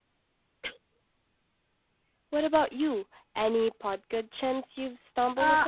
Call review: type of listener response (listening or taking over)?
taking over